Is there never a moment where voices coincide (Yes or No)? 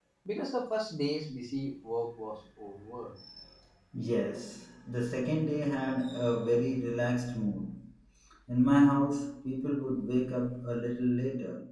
Yes